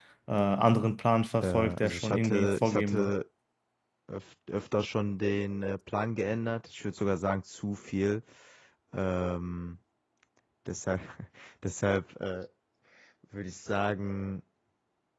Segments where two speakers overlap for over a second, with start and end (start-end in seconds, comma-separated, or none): 1.4-3.1